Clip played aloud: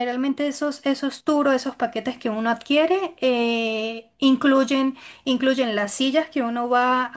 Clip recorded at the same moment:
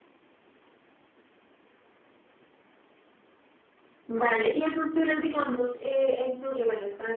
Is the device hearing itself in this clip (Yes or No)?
No